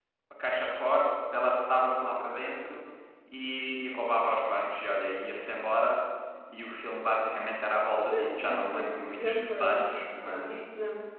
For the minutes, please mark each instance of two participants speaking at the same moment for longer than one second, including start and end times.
8.0-10.6

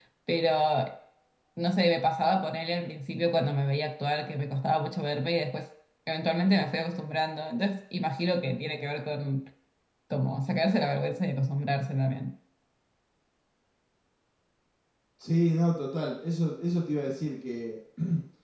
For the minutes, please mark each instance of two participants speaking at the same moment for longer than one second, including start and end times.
none

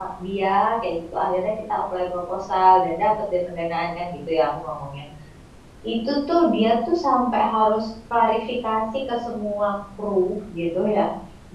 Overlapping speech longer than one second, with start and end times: none

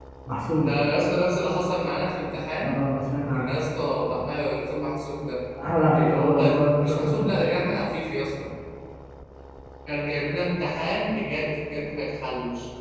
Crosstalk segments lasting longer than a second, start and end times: 6.0-7.3

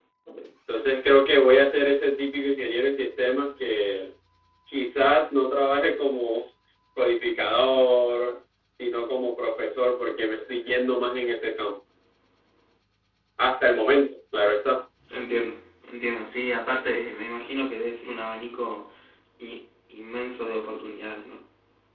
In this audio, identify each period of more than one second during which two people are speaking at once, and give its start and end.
none

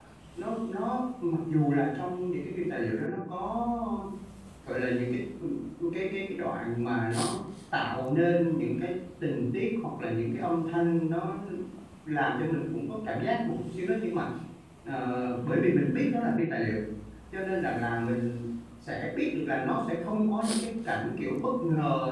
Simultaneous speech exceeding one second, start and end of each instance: none

